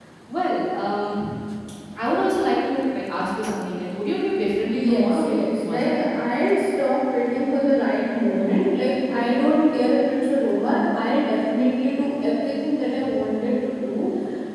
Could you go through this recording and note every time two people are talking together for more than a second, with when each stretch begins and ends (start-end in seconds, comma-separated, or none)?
4.7-6.0